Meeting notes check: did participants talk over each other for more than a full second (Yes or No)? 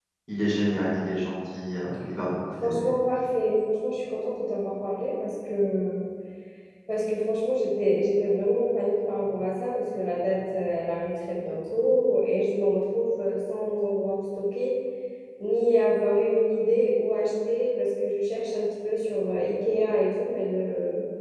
No